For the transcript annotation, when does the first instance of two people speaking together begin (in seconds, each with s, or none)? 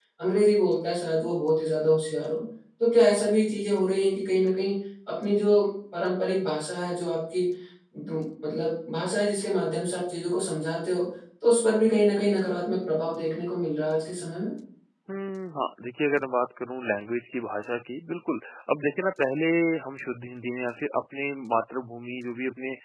none